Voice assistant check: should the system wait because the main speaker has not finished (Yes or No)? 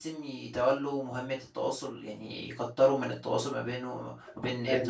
Yes